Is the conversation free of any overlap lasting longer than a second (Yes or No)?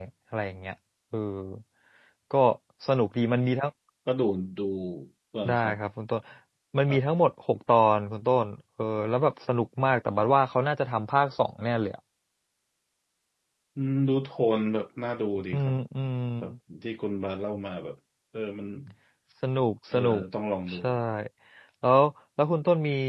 Yes